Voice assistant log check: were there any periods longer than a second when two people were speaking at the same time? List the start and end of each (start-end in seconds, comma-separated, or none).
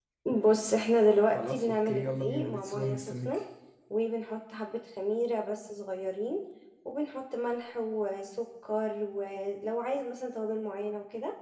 1.3-3.4